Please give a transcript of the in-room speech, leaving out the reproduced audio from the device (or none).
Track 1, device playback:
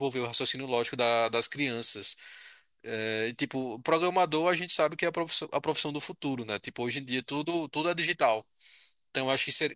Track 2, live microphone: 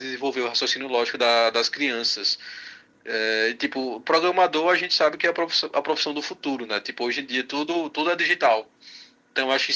none